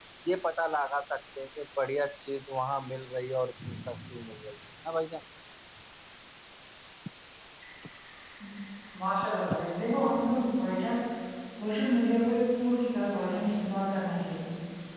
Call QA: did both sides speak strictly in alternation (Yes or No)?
Yes